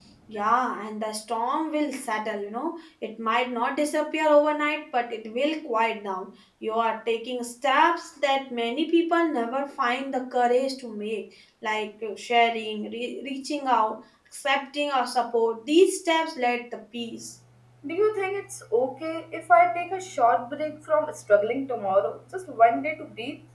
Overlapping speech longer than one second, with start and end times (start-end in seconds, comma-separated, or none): none